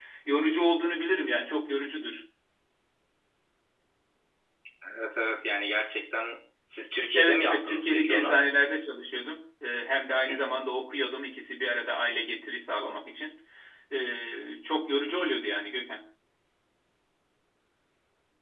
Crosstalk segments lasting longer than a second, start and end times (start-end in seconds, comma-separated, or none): 7.1-8.3